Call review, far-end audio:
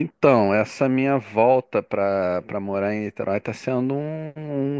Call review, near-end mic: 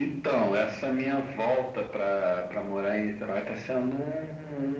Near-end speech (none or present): none